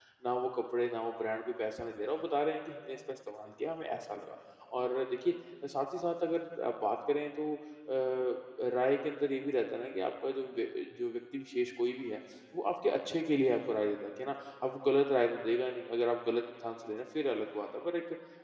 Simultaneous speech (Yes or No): No